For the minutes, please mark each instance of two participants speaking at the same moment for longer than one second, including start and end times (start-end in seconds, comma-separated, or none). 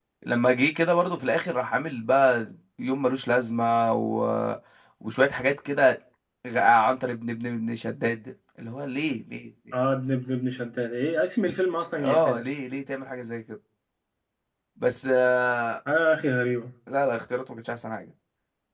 none